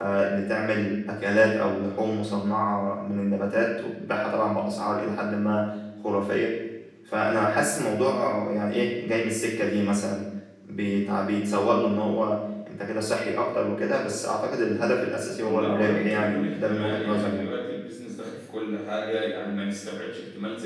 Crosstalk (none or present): present